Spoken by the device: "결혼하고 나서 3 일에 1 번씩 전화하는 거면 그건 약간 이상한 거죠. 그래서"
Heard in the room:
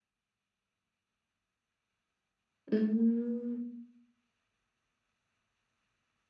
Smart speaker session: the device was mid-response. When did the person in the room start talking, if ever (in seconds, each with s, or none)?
2.7 s